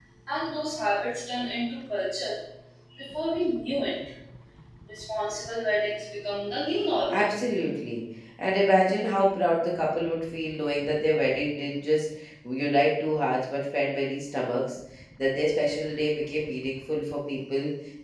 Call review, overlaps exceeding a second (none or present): none